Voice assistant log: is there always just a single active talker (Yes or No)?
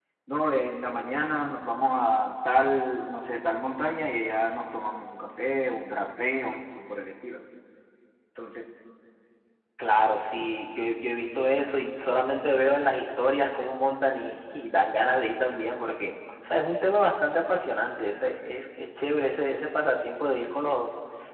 Yes